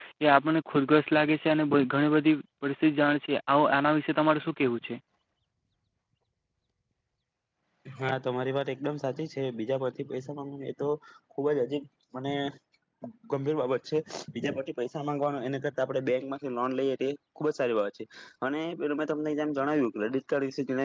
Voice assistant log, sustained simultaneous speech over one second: none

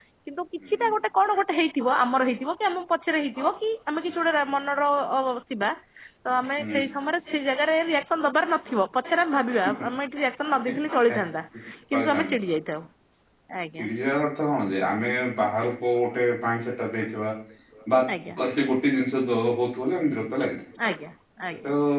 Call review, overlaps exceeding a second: none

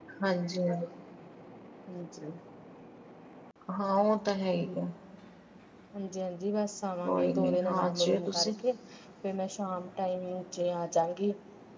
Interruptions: present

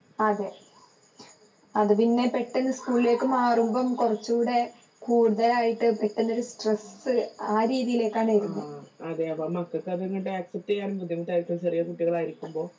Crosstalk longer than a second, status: none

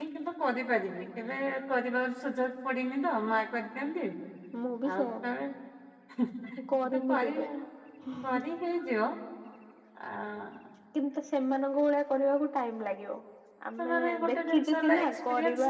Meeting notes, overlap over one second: present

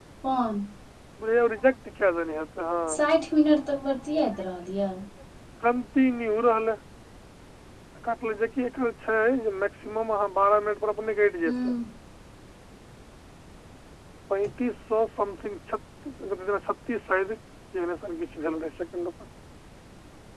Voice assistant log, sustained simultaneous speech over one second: none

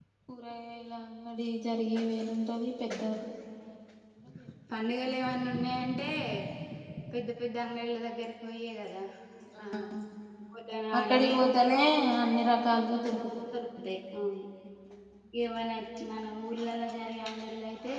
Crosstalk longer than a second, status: none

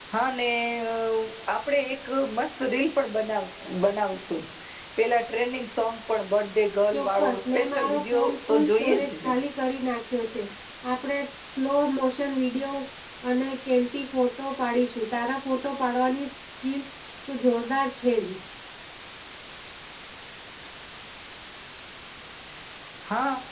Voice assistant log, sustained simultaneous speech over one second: present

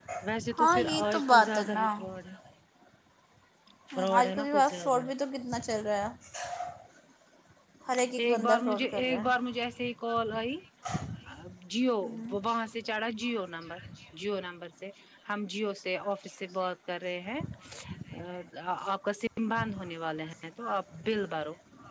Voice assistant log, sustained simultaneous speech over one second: present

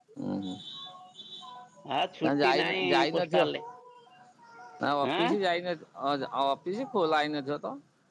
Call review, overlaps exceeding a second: present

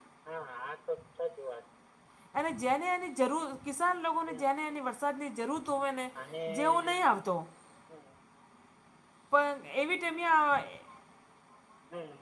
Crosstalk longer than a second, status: none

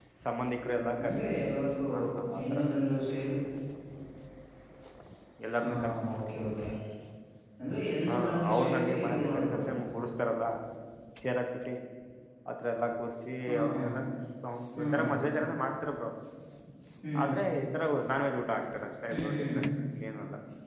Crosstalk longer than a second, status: present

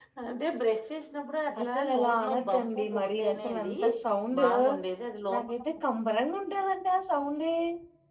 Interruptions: present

